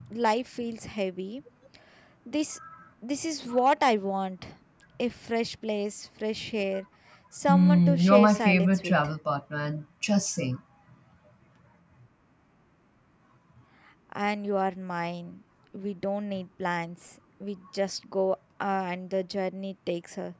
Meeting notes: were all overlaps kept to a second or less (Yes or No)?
No